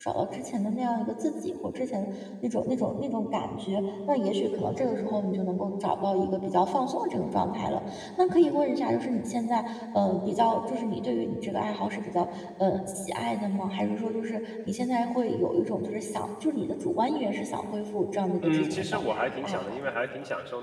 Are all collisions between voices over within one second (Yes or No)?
No